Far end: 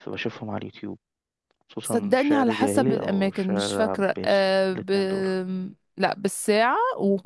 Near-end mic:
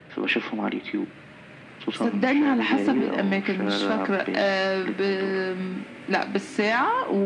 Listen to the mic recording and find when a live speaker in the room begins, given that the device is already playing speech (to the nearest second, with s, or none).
none